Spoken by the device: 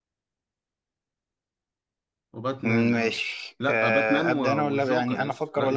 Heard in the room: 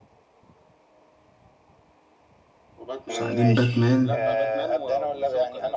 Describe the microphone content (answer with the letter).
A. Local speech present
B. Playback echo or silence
A